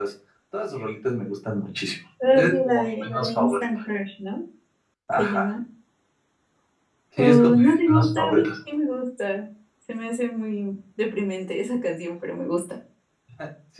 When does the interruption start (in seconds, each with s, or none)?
2.4 s